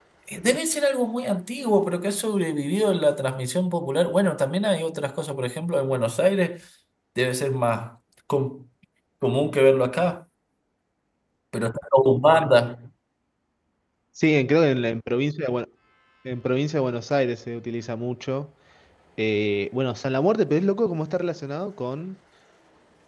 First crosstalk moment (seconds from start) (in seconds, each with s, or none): none